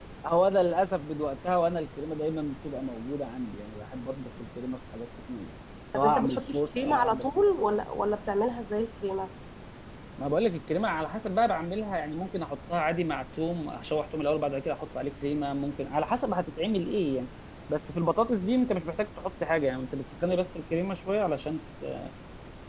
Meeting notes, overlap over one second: present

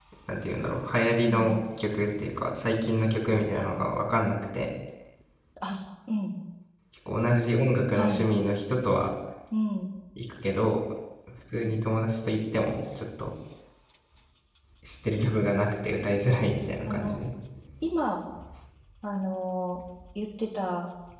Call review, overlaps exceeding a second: none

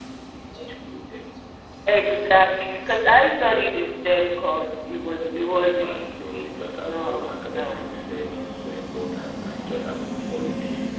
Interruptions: present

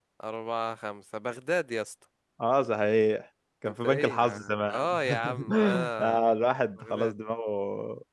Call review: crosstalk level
present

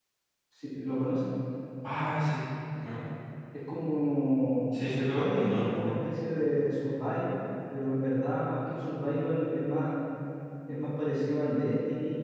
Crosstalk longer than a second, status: present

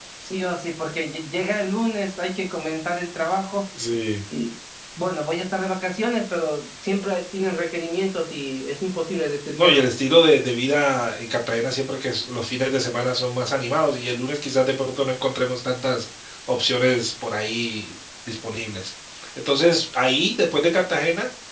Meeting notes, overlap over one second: none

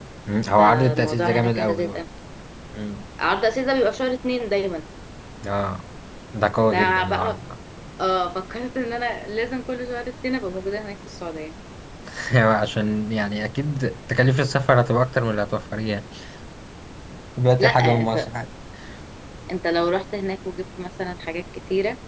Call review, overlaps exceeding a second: present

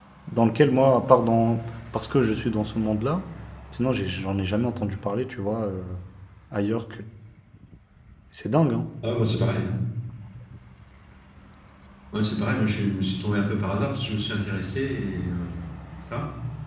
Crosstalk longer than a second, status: none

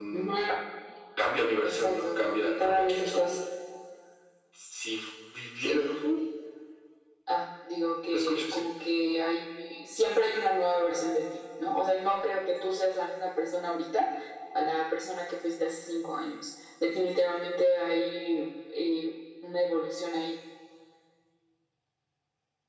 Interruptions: present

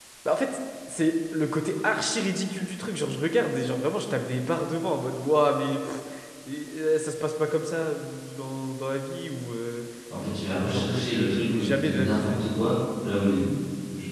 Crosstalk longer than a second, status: present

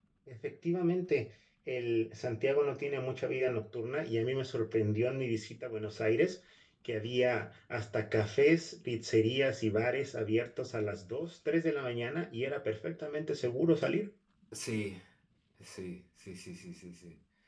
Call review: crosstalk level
none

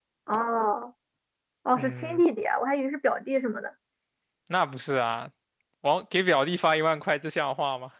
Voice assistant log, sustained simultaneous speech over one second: none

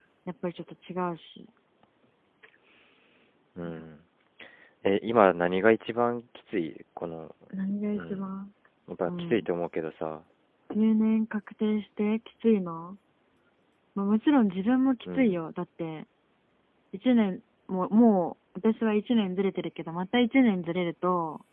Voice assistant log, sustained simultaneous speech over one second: none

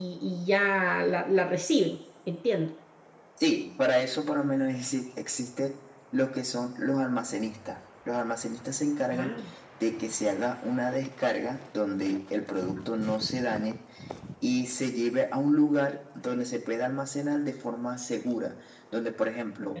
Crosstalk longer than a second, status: none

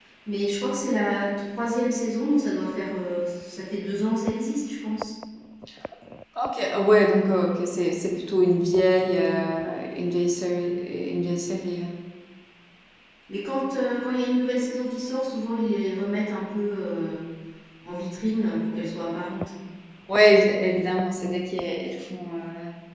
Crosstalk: none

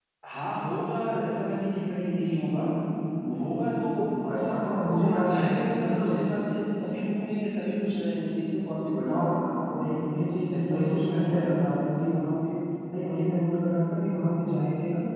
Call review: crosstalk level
present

